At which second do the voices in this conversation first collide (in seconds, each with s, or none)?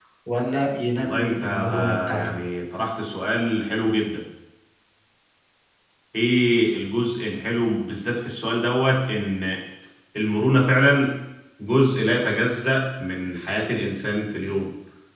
1.0 s